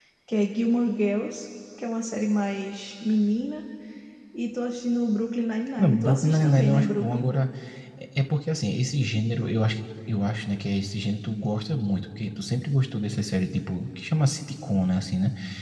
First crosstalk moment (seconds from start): 5.8 s

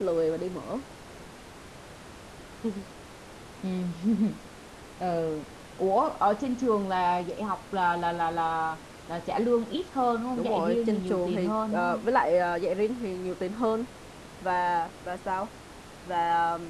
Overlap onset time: 10.3 s

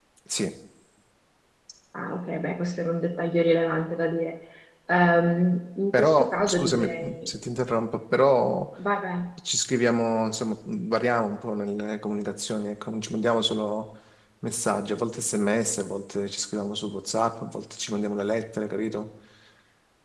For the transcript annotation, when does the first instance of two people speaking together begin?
5.9 s

